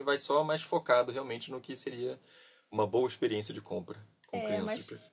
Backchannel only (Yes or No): No